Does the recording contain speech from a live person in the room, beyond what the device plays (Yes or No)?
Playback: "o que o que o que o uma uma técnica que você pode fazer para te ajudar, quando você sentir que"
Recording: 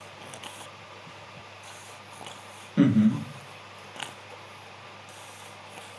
Yes